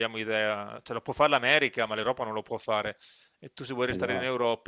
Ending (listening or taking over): listening